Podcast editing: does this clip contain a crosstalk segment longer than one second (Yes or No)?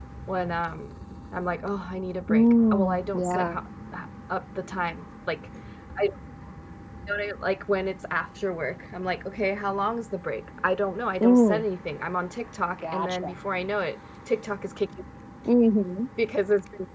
Yes